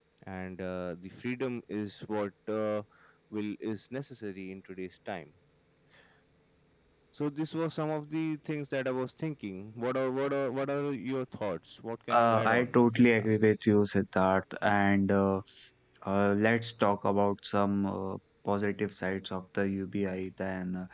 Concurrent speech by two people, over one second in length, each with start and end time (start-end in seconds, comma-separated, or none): 12.1-13.3